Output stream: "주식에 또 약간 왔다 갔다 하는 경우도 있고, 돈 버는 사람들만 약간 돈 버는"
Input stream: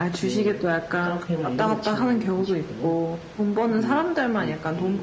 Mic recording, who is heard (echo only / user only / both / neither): both